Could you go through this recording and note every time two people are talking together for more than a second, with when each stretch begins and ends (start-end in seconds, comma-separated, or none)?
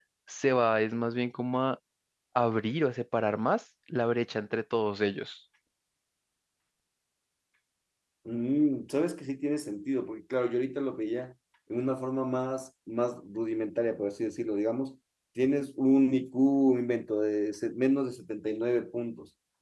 none